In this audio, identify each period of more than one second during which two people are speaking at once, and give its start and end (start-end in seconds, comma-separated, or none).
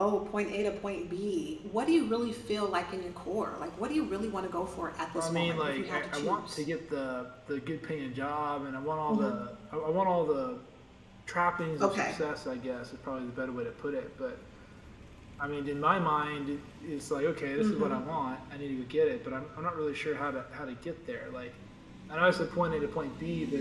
5.2-6.6